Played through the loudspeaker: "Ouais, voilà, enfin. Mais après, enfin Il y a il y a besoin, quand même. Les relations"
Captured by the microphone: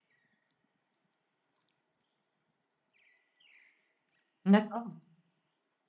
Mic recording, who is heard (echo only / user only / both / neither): user only